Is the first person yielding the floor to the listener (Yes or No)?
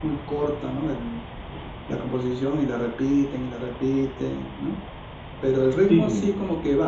No